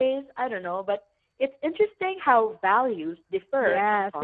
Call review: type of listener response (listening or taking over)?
taking over